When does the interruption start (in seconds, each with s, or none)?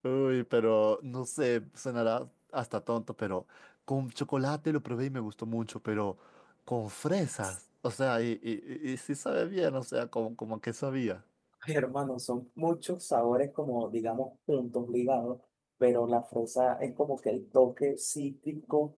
none